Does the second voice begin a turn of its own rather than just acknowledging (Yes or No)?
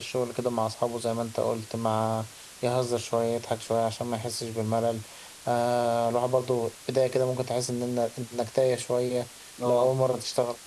No